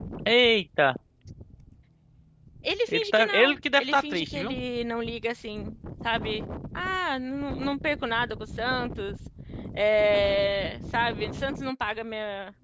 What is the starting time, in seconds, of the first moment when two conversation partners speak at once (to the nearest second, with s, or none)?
3 s